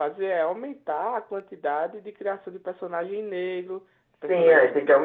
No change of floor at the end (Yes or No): No